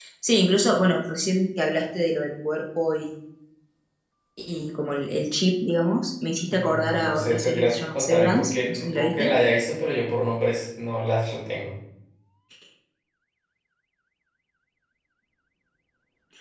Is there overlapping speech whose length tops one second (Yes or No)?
Yes